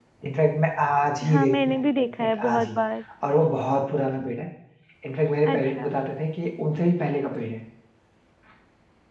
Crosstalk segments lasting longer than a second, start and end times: 1.3-2.8

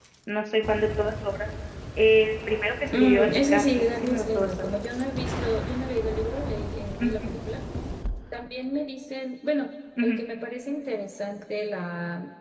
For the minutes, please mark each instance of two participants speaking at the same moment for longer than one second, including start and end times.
3.0-4.7

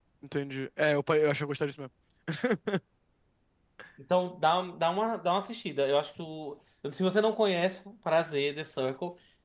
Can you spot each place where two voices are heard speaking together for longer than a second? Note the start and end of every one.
none

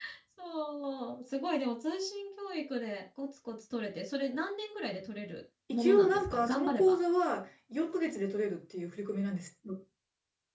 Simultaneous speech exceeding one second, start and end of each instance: 5.7-7.0

